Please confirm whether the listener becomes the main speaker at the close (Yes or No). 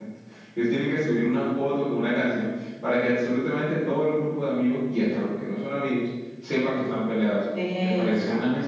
No